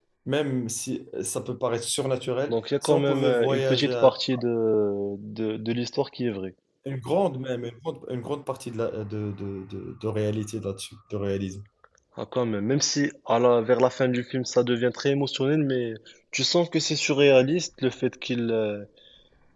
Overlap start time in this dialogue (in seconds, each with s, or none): 2.5 s